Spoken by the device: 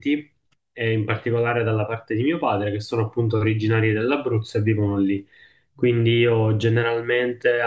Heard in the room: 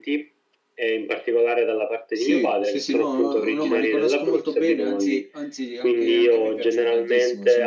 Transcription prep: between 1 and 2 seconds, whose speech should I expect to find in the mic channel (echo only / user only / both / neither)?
echo only